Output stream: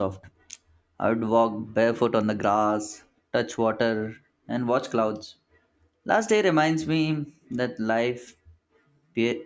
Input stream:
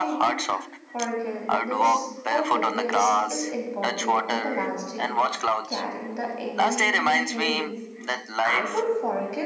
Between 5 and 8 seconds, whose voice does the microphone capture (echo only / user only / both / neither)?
both